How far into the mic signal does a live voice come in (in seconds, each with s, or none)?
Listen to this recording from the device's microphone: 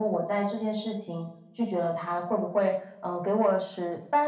none